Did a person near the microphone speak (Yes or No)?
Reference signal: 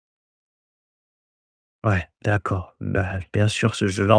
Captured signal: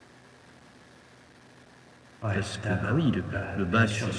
Yes